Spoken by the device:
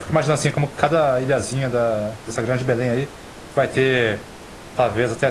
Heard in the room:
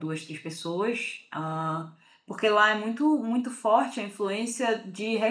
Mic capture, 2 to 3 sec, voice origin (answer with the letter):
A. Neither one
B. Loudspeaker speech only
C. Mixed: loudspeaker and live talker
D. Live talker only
D